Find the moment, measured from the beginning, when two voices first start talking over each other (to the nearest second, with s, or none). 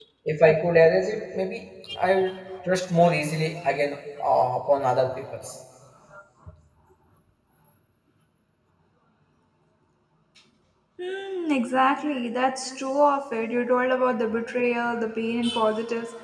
none